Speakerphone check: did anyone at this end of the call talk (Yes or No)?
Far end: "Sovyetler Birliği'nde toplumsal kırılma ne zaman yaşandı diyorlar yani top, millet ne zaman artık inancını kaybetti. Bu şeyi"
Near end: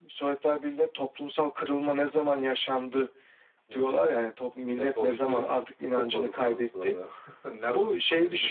Yes